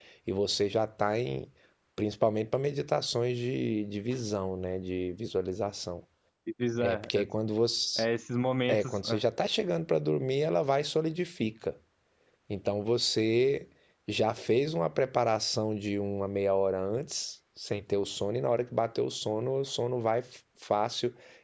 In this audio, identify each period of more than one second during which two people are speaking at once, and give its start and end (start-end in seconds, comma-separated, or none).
none